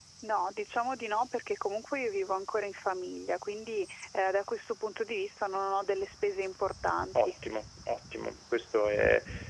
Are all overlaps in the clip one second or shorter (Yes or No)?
Yes